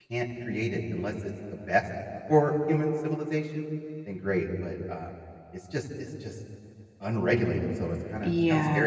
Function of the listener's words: taking over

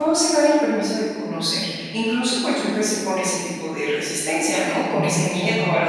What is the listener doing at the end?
listening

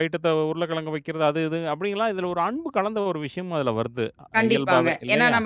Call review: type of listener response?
taking over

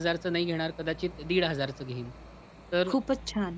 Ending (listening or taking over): listening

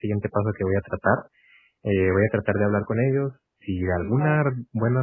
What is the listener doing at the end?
listening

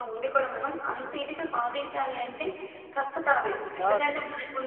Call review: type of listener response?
listening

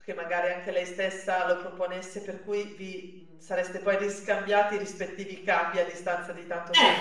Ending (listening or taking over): taking over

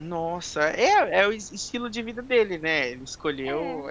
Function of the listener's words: listening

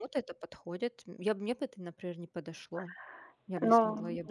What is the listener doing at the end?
taking over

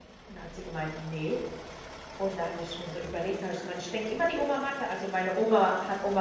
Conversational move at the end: listening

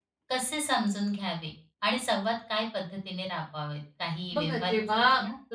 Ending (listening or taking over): taking over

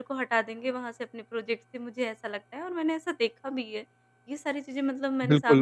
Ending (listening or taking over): taking over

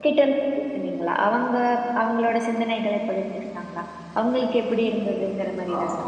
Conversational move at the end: taking over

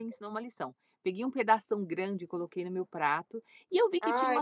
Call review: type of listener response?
listening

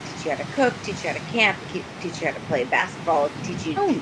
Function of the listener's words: listening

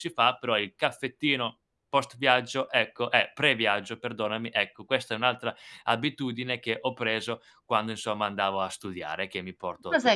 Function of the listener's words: taking over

